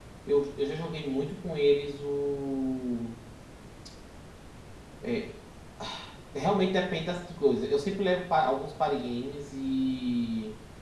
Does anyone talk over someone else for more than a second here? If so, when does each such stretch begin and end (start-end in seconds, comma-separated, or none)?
none